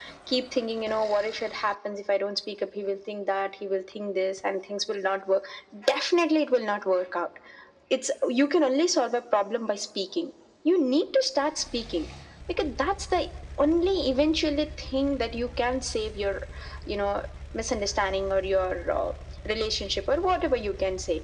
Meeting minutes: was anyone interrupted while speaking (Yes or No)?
No